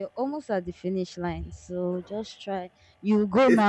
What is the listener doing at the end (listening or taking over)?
listening